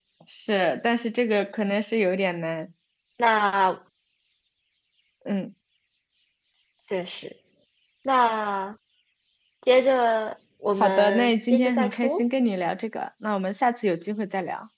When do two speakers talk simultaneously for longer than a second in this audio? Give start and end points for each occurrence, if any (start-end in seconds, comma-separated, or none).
10.8-12.2